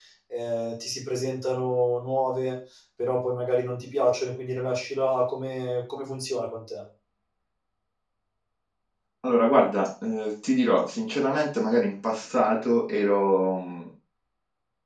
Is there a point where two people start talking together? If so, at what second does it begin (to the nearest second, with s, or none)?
none